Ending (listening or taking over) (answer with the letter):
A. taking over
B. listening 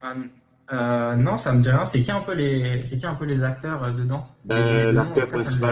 A